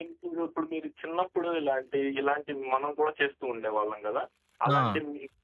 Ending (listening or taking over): listening